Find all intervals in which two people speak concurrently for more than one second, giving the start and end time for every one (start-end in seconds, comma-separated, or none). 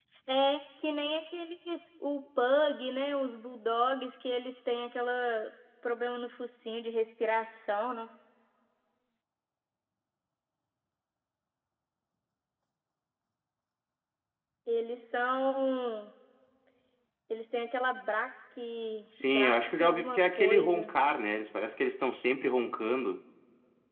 19.2-20.9